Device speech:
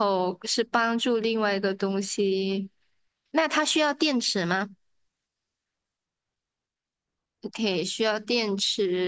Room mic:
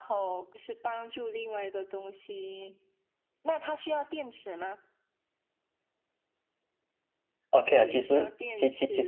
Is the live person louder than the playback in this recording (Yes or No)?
Yes